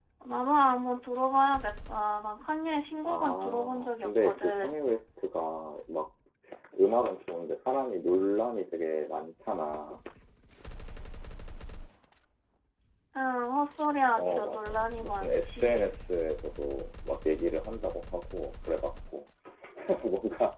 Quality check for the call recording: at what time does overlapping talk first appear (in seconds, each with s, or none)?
3.0 s